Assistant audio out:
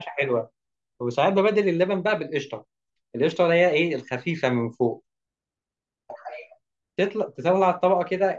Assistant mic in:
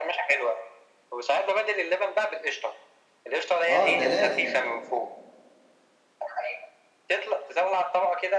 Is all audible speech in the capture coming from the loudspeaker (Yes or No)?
No